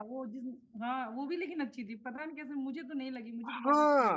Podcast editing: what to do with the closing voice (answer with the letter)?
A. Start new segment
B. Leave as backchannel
A